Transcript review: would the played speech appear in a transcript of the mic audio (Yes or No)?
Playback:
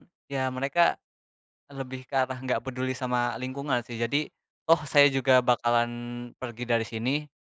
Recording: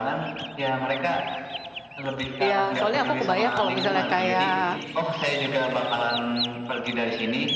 Yes